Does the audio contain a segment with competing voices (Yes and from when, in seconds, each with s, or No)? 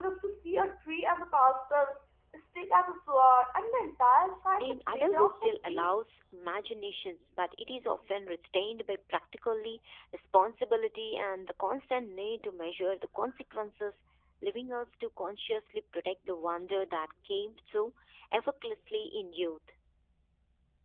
Yes, from 4.6 s